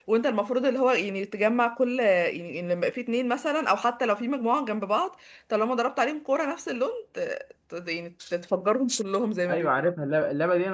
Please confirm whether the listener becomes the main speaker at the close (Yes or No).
Yes